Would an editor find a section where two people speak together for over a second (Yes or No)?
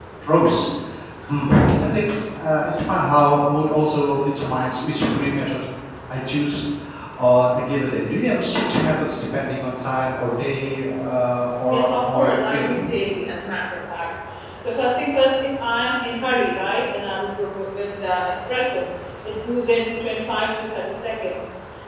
Yes